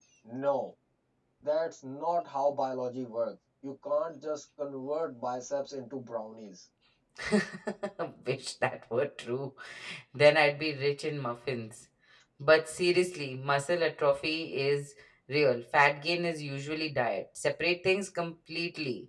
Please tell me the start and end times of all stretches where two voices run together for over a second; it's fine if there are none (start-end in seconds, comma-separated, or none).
none